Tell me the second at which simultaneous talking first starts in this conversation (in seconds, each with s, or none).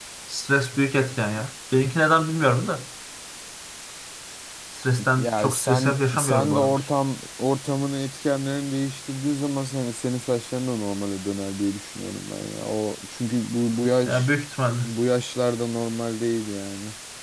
5.2 s